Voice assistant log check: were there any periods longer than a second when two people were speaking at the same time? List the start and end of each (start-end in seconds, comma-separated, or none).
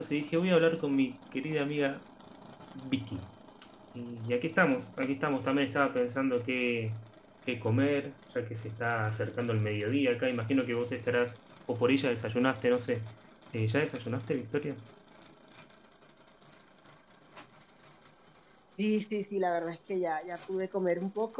none